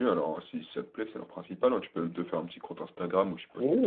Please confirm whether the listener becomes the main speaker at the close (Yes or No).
Yes